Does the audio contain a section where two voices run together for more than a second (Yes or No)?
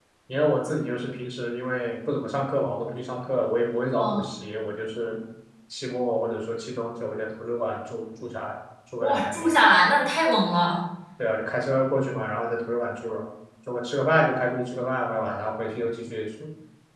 No